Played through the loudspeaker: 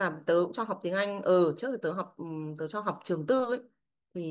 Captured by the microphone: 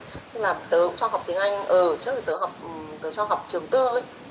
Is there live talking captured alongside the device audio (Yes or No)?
No